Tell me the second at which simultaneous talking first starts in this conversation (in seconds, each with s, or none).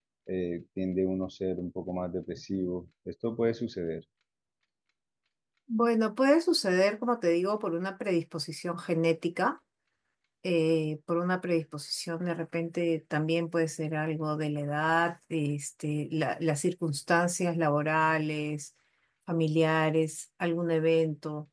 none